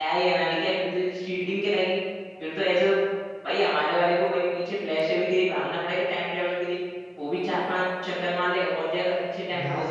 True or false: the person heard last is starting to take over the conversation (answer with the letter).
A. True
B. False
A